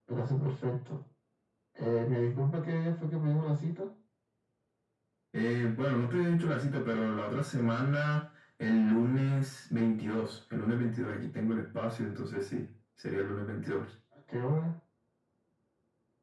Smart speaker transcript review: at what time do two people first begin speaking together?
none

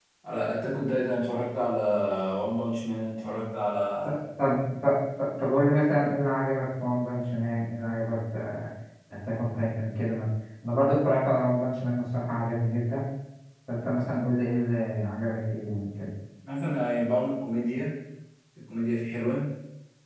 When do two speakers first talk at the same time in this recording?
none

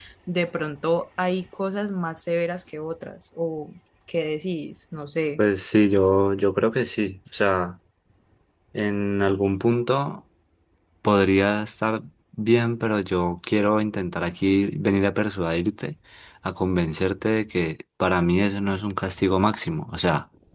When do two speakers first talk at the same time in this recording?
none

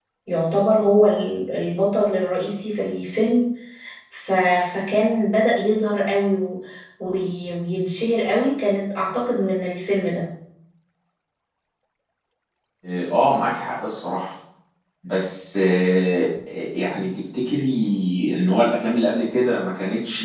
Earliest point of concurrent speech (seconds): none

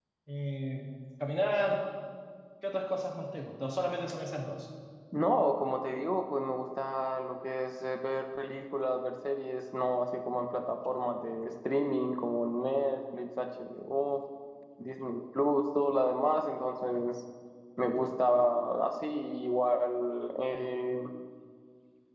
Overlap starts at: none

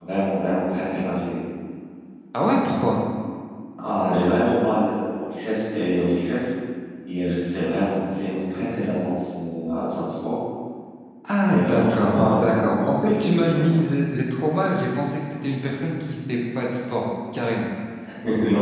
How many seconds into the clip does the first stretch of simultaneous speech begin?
11 s

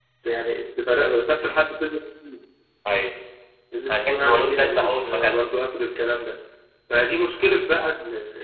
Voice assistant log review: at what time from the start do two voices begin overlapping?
4 s

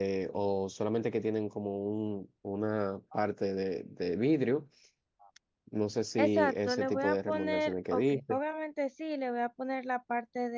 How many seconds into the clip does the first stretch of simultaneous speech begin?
6 s

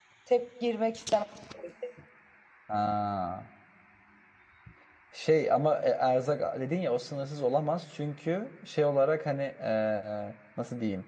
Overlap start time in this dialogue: none

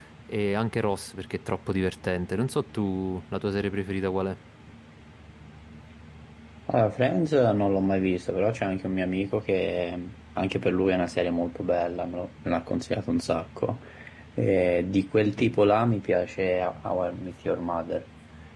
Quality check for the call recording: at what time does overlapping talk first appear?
none

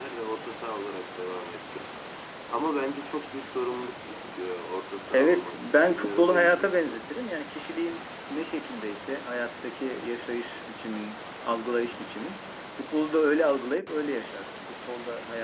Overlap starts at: 5 s

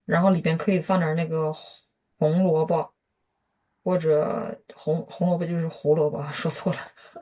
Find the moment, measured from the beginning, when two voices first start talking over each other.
none

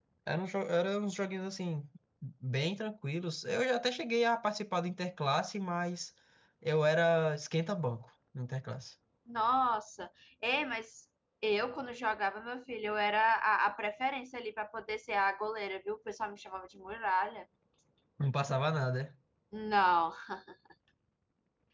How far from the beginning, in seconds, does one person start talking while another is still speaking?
none

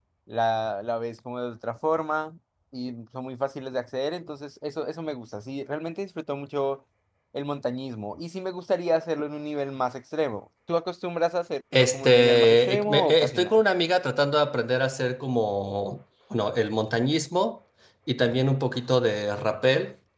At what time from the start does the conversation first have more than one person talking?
12 s

